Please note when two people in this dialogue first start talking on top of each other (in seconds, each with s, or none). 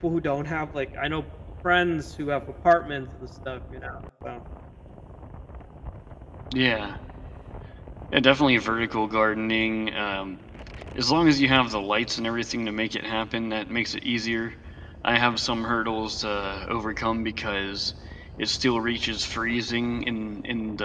none